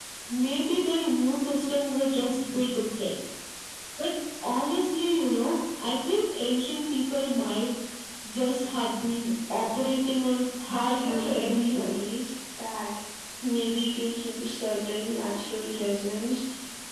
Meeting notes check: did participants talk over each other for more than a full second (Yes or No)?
Yes